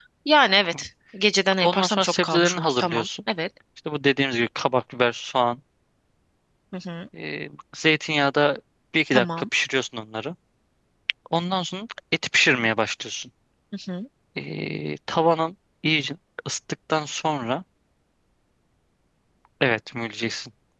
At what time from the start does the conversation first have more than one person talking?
1.6 s

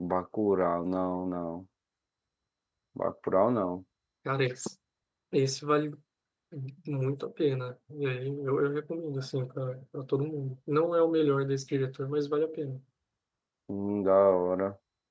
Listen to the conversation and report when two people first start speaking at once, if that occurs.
none

